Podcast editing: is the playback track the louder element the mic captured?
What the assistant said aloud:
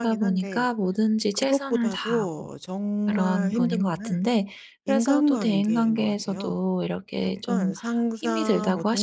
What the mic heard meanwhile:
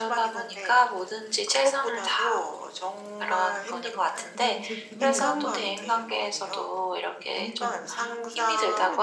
Yes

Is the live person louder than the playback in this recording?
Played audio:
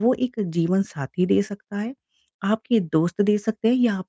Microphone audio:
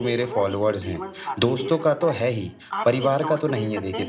Yes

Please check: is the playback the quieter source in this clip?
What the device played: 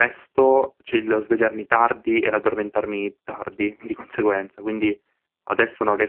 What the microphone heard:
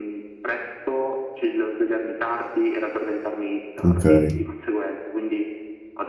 Yes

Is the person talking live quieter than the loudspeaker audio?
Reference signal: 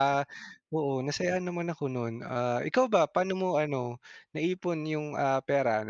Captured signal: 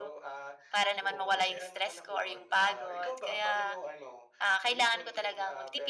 No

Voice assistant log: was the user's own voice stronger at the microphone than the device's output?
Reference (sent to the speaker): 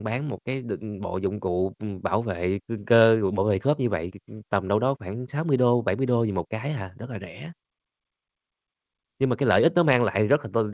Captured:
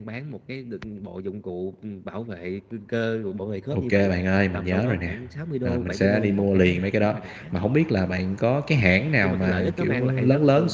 Yes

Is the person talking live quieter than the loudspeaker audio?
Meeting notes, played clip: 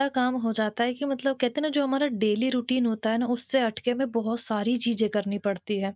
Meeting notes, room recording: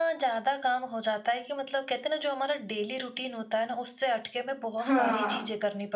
No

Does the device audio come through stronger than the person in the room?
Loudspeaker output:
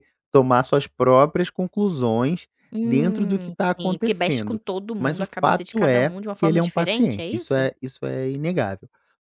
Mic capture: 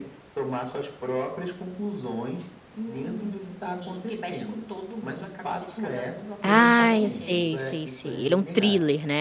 No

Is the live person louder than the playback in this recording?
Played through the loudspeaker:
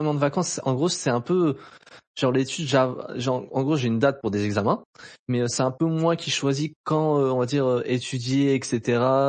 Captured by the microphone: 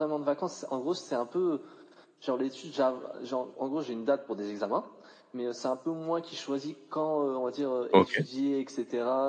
Yes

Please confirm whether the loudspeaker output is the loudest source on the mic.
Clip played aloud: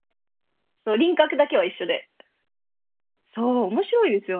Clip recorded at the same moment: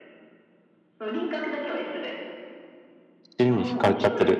No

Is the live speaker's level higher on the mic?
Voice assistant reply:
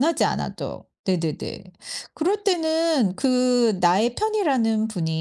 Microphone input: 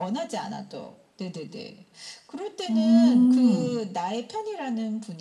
Yes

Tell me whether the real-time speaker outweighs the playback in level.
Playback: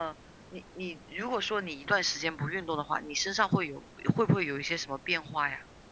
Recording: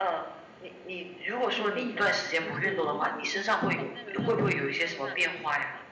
No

